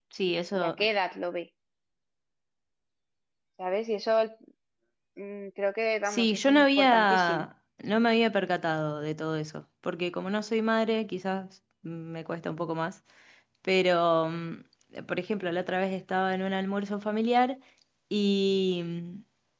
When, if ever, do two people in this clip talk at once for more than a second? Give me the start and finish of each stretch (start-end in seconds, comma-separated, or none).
6.1-7.5